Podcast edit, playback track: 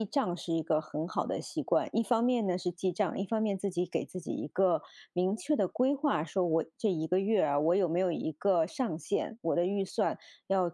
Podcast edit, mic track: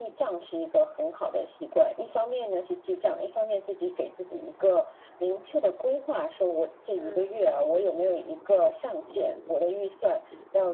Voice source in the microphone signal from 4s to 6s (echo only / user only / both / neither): echo only